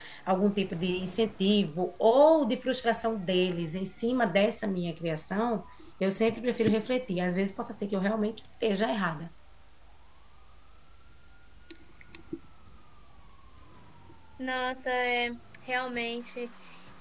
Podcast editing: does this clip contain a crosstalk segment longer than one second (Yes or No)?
No